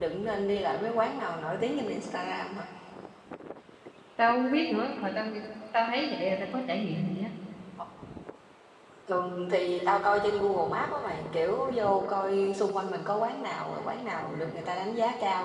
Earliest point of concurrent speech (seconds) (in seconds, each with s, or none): none